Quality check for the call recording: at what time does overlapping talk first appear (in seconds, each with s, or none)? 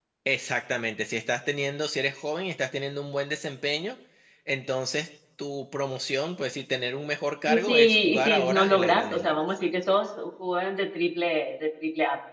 7.4 s